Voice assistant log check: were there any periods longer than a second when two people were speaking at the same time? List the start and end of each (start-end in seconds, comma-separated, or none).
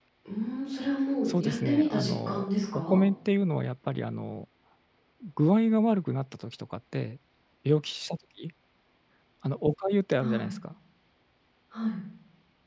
1.3-3.0